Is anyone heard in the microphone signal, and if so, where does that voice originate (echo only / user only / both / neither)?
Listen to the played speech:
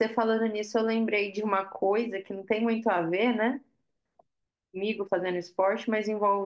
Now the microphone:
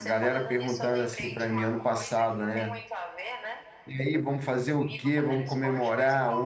both